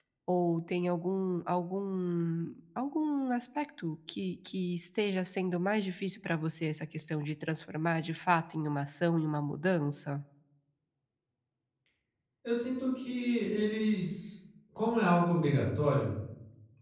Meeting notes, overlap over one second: none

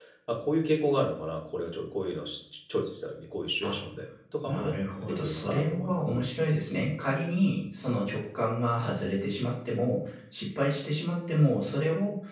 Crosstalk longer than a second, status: present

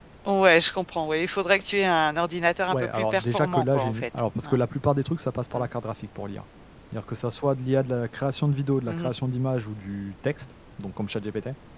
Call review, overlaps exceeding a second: present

